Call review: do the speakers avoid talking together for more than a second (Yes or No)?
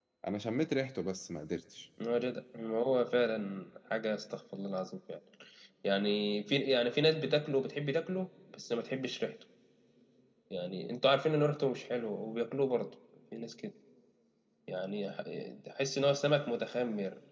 Yes